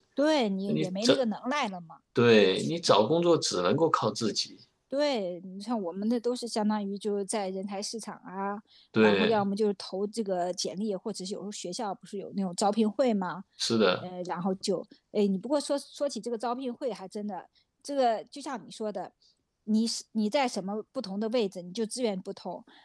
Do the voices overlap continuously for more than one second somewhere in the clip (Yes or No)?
No